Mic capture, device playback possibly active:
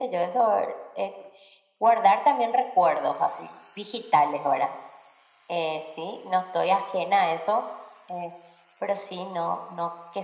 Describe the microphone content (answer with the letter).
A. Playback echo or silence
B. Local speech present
A